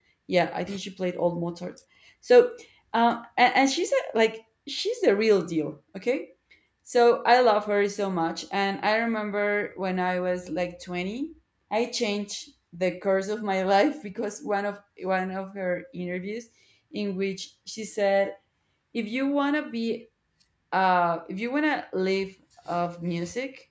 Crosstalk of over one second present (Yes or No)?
No